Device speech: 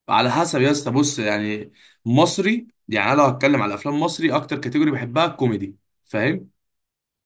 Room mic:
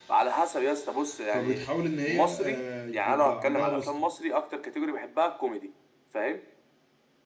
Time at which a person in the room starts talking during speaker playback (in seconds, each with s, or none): 1.3 s